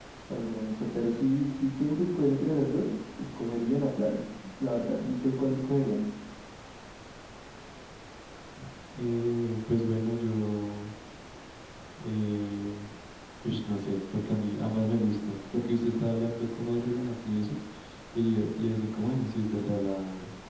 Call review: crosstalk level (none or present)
none